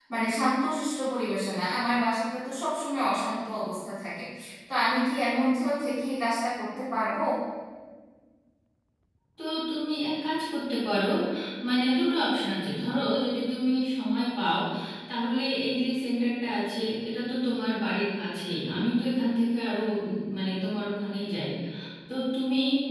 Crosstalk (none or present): none